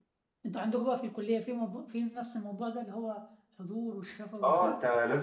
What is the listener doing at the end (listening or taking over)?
taking over